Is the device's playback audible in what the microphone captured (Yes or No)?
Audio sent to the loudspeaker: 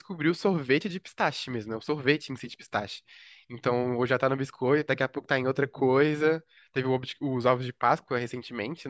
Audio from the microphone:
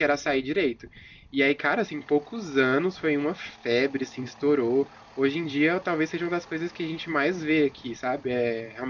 No